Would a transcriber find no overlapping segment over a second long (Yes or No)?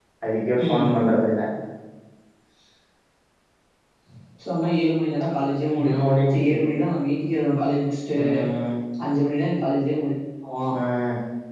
Yes